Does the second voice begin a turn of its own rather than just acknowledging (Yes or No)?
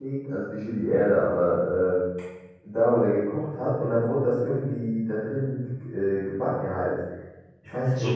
Yes